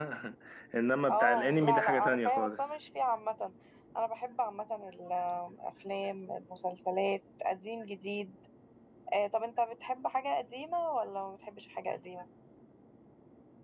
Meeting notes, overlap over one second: present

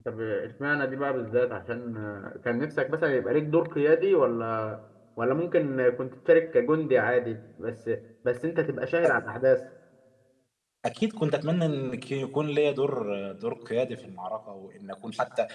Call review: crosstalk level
none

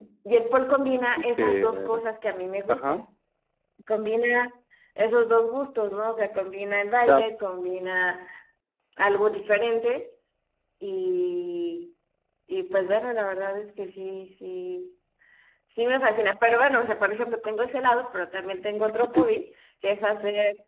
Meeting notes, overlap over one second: present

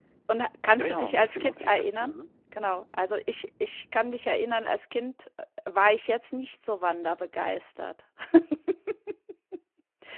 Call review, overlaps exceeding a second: present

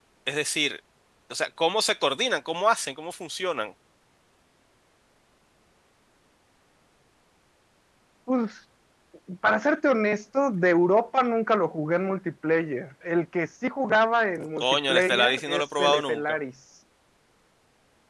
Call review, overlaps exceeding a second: present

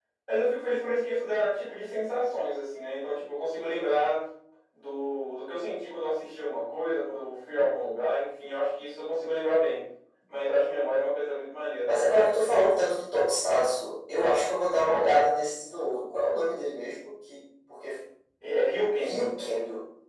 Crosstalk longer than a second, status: none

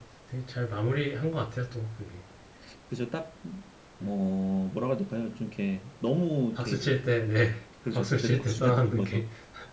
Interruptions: present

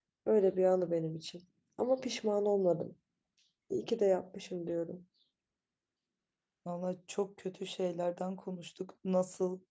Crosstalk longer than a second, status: none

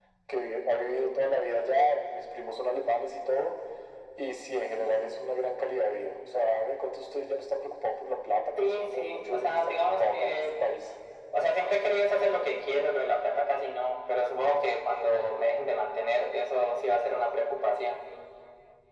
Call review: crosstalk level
present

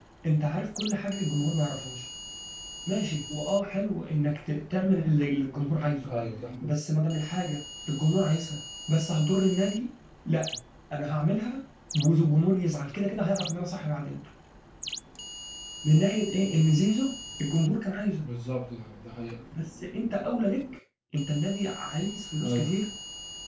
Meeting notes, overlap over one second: none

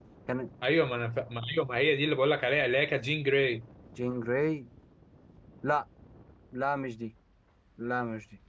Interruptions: none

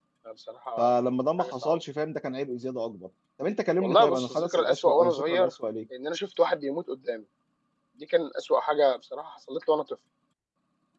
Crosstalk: present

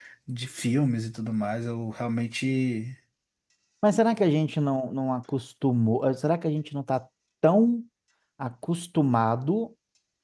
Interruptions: none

